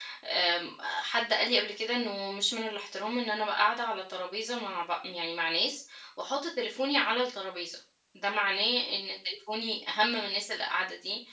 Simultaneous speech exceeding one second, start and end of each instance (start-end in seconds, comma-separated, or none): none